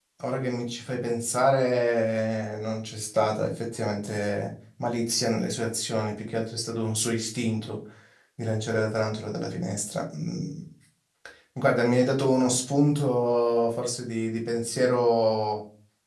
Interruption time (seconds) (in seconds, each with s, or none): none